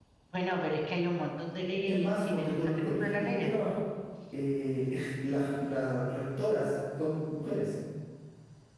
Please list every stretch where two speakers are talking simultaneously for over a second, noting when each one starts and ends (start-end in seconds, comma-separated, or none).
1.9-3.5